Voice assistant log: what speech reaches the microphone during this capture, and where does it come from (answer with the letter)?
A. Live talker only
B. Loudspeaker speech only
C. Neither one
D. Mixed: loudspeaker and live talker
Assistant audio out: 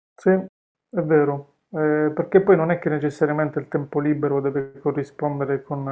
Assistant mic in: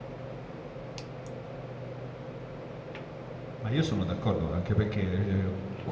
A